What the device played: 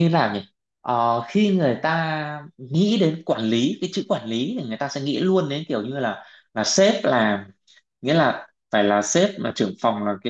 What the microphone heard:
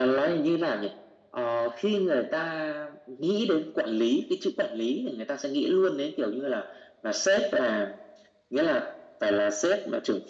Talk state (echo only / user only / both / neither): echo only